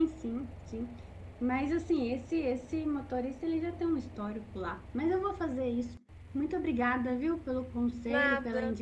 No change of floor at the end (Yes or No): Yes